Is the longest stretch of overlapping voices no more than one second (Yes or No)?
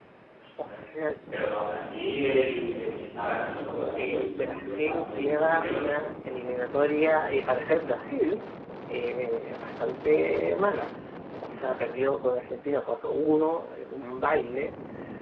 No